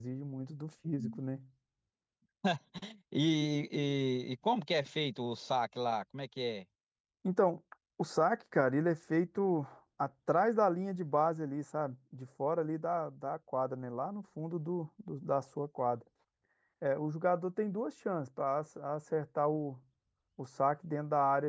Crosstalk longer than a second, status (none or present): none